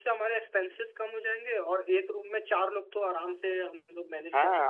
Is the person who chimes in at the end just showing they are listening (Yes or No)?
No